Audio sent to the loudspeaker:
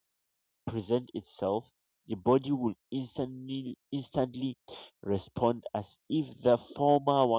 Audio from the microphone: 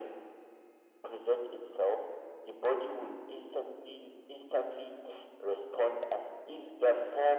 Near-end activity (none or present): none